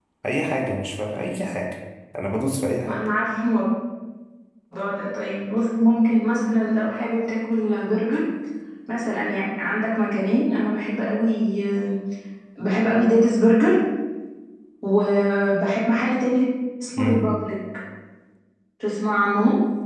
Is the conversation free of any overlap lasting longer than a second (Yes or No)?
Yes